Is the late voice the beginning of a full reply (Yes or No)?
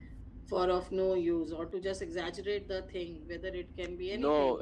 Yes